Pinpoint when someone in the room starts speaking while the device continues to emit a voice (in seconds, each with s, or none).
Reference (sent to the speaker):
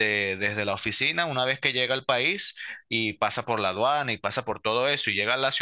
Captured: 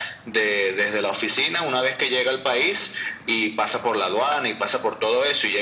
none